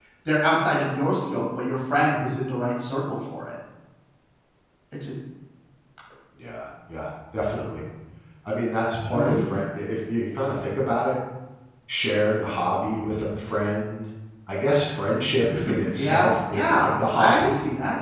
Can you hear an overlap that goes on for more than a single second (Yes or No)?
Yes